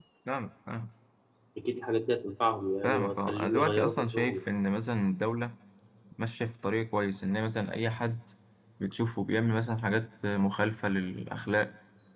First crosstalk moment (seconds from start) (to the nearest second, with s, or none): 3 s